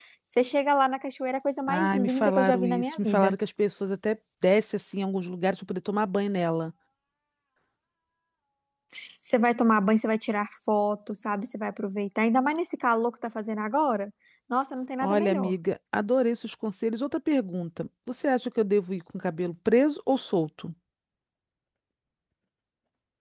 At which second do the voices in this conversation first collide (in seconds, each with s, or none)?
1.7 s